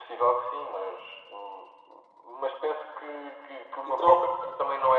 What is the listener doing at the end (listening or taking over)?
listening